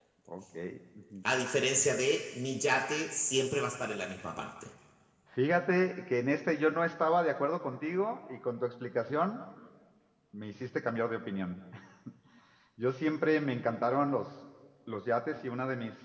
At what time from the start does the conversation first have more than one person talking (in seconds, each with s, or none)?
none